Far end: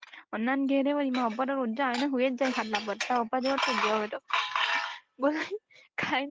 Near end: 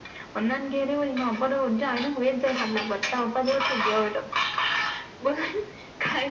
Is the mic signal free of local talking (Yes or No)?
Yes